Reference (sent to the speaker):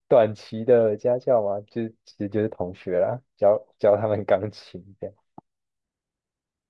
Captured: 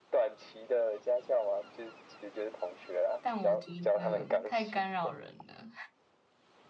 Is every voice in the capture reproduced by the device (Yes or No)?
No